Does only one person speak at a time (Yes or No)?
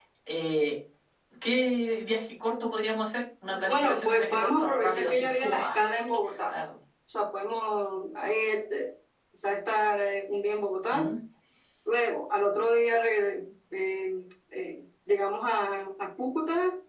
No